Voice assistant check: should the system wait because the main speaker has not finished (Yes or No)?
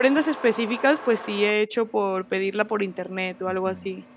No